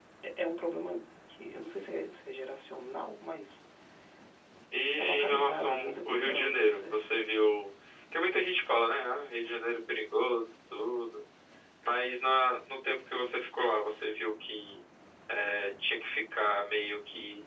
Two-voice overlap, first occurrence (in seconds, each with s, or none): 5.2 s